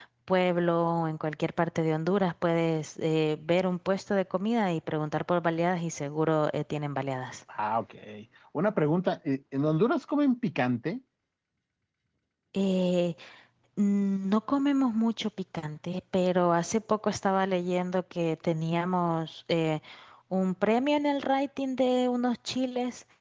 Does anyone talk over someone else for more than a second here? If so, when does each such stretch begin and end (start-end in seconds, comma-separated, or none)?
none